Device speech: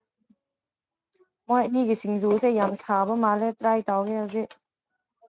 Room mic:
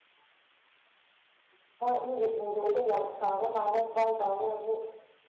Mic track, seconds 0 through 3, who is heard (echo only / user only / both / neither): echo only